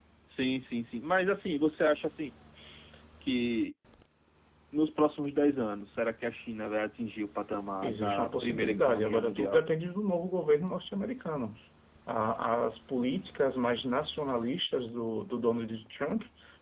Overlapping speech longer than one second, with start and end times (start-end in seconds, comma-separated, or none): 7.8-9.6